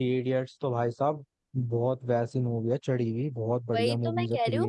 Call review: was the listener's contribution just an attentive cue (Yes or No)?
No